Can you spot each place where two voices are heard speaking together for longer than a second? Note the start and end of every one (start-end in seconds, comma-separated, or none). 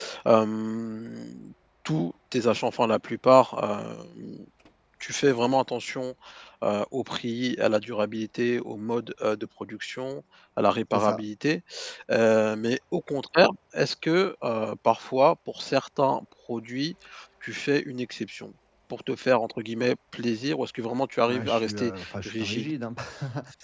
21.3-22.7